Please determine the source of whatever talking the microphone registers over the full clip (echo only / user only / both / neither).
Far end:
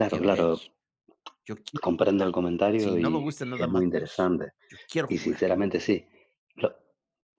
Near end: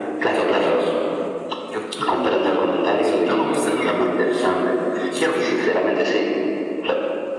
echo only